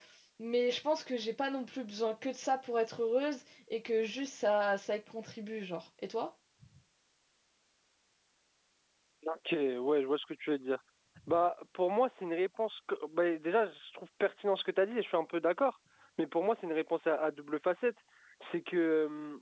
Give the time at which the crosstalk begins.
none

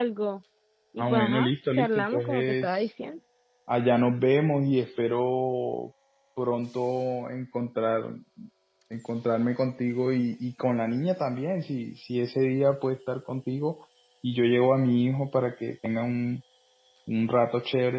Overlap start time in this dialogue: 1 s

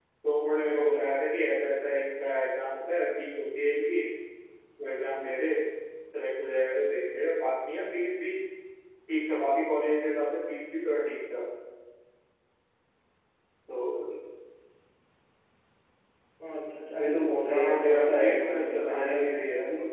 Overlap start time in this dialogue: 18 s

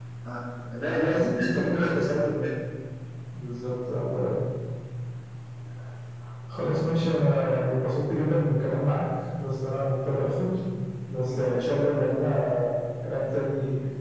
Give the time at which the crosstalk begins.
1 s

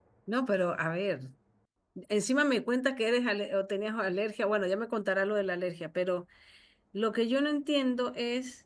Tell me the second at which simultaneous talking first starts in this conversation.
none

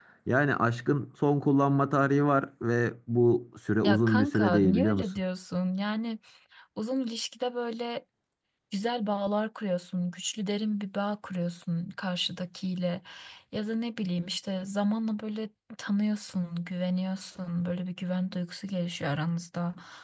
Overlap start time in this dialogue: 4 s

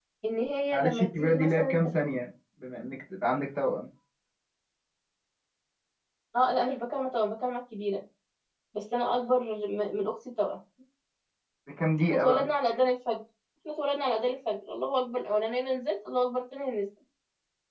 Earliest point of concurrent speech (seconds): 1 s

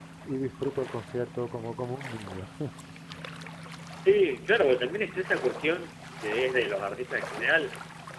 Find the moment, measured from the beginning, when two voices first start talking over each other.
none

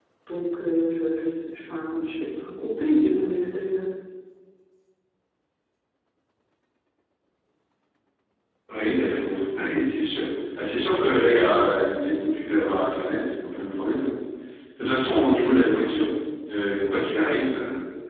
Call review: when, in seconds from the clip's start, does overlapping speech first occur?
none

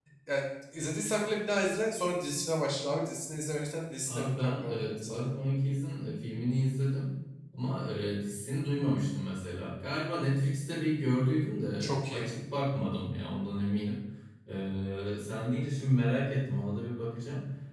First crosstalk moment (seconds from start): 4 s

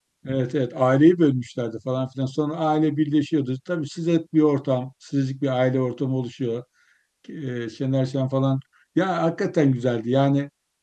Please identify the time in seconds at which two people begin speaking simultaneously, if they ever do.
none

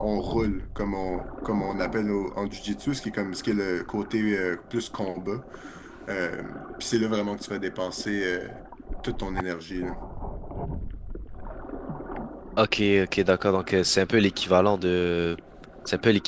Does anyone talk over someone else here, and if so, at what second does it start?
none

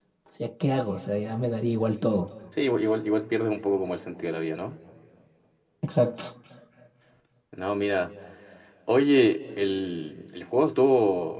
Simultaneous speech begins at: none

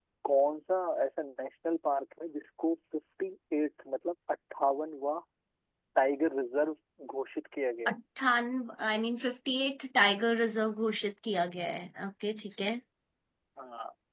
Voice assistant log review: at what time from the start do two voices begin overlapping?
none

